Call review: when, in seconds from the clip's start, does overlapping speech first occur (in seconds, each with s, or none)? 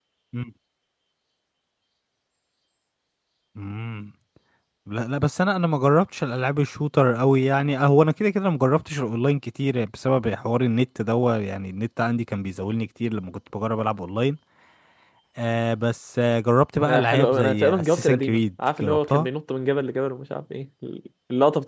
16.8 s